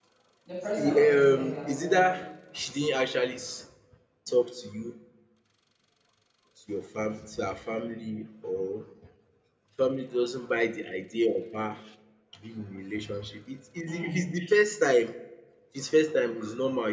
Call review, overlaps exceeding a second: present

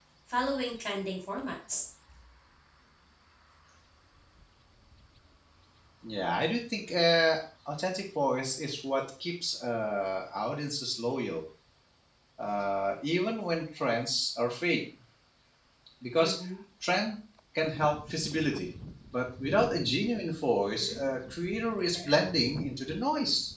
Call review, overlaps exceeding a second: none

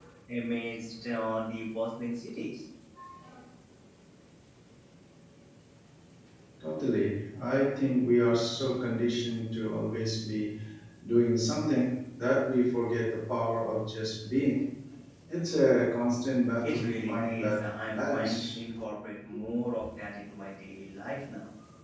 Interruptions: present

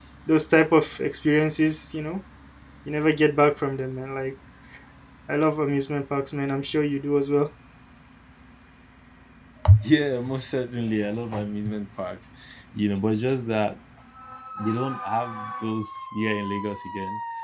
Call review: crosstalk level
none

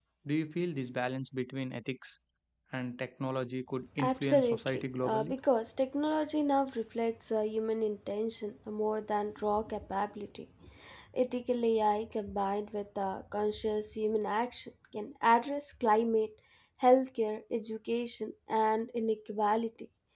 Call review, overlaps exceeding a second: present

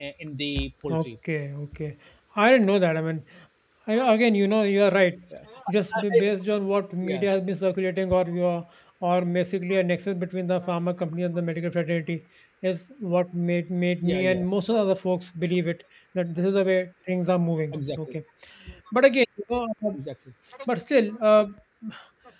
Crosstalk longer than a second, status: none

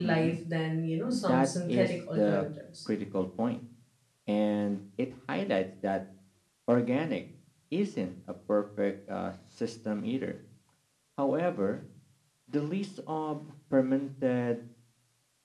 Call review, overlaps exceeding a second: present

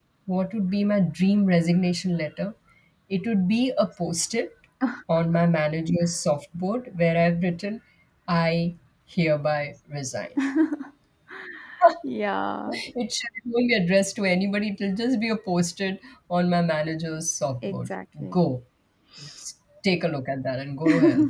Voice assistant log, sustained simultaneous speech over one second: none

